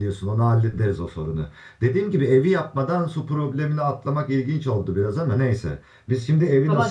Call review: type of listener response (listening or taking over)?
taking over